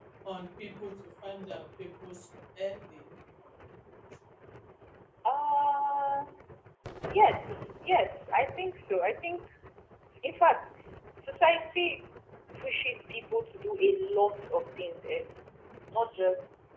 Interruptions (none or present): none